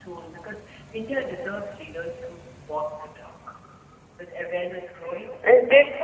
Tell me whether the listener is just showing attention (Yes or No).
Yes